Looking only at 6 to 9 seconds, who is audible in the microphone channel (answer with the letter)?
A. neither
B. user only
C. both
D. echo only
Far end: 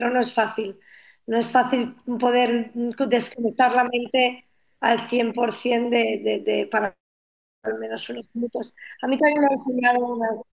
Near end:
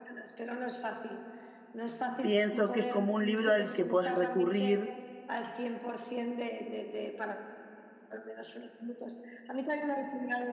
D